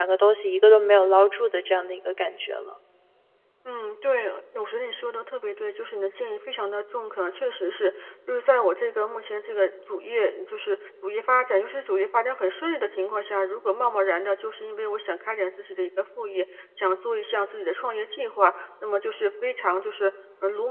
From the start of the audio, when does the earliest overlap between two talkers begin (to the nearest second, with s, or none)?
none